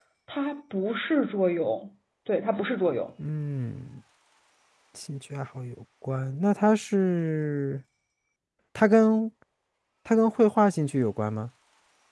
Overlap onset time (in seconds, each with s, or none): none